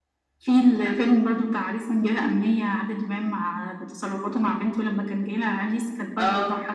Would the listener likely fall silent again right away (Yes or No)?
Yes